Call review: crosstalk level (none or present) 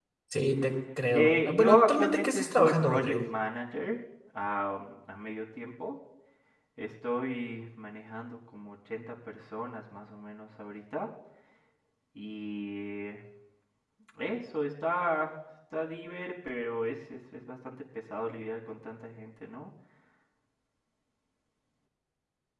present